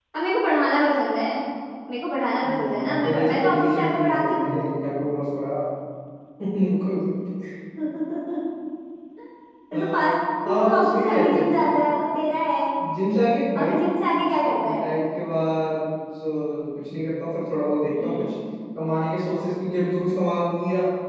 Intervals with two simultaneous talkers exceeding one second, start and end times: 2.6-4.5, 10.5-11.8

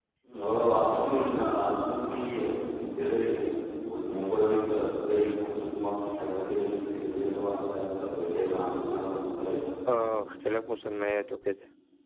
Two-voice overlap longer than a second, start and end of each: none

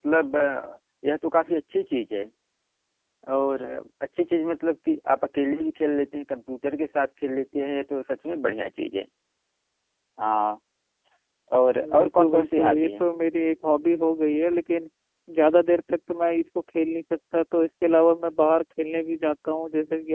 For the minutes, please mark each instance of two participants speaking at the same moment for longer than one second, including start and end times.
11.8-13.1

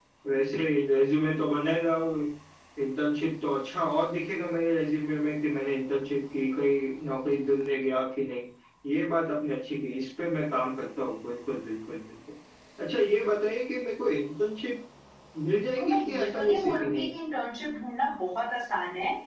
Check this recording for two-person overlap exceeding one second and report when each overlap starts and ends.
15.6-17.1

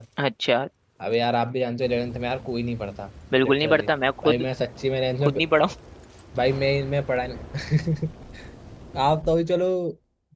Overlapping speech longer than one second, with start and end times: none

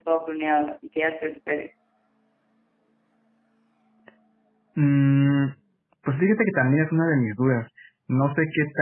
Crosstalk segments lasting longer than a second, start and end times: none

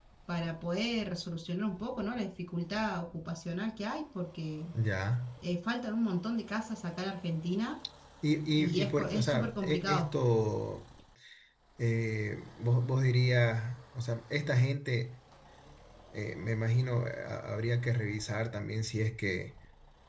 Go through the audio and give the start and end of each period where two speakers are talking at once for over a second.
8.8-10.1

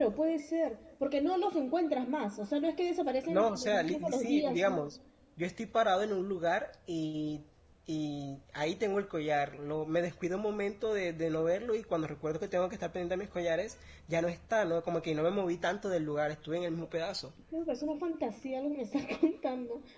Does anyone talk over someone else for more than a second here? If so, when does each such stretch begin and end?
3.3-4.9

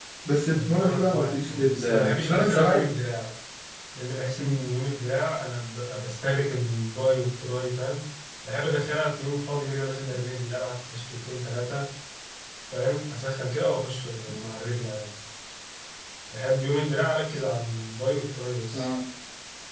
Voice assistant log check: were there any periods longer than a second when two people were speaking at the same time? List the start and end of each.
0.5-2.9

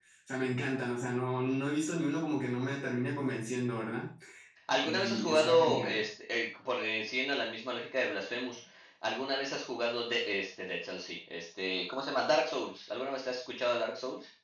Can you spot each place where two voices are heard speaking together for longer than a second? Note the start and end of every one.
4.8-6.0

